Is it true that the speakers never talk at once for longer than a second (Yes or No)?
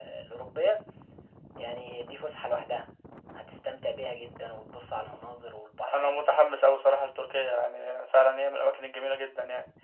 Yes